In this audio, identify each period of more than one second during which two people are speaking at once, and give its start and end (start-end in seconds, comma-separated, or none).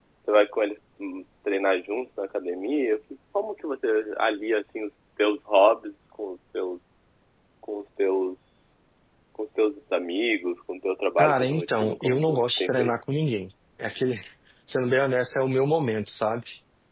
11.2-12.9